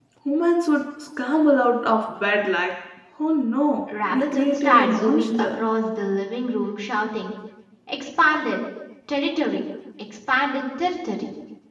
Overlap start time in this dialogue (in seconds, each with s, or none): 3.9 s